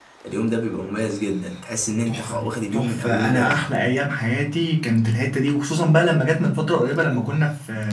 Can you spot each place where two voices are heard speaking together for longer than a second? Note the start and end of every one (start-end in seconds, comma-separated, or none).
2.1-3.7